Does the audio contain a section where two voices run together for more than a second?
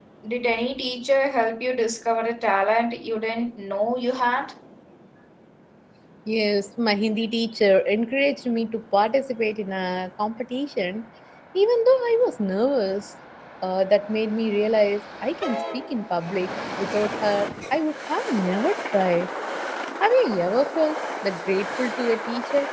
No

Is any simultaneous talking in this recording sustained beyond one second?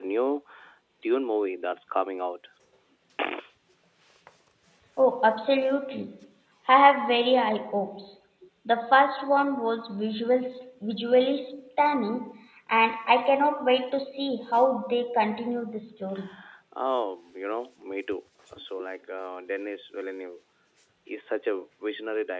No

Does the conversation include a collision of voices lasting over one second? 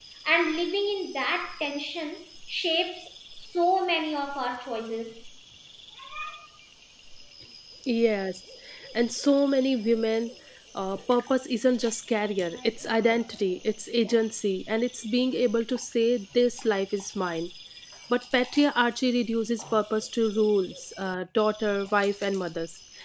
No

